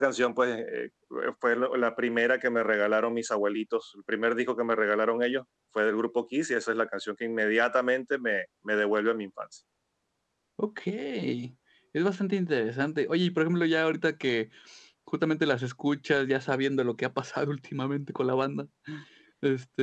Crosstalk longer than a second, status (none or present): none